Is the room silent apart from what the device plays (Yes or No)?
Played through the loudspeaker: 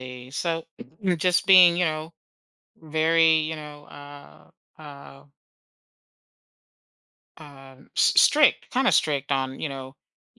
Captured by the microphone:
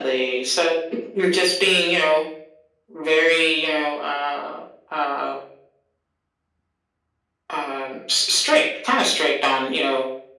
Yes